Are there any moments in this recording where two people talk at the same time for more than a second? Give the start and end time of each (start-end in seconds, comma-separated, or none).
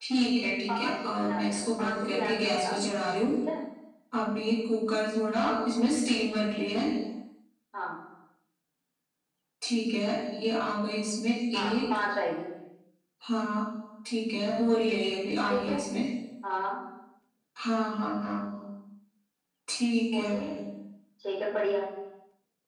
0.7-2.9